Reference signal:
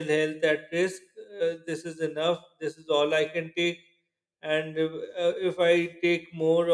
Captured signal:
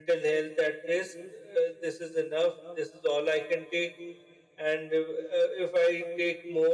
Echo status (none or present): present